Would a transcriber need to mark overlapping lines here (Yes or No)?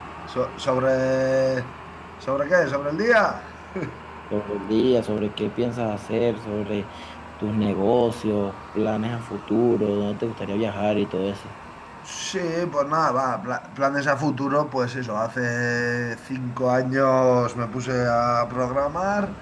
No